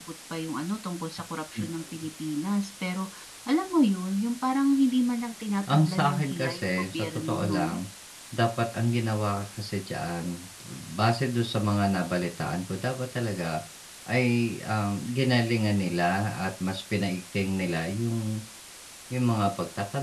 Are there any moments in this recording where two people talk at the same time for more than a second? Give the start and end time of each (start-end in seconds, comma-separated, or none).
5.7-7.7